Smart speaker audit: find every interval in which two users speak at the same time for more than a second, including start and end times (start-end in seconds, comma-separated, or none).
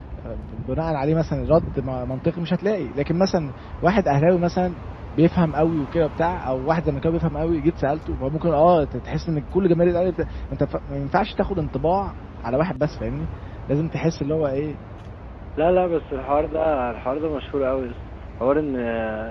none